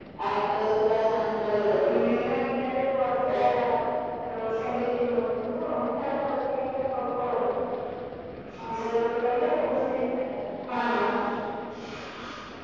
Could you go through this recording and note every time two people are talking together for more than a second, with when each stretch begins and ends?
none

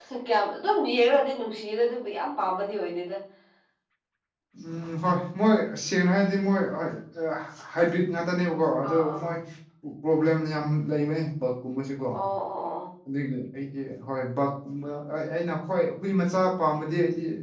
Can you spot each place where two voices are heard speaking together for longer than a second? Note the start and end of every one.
none

